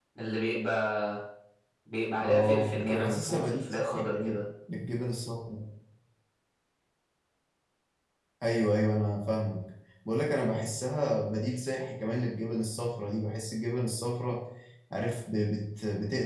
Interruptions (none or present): present